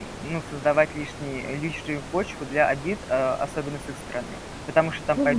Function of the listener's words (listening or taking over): taking over